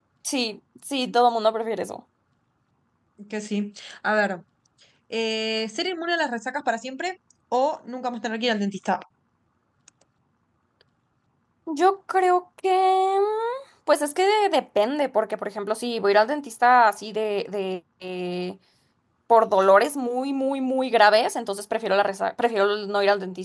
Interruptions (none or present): none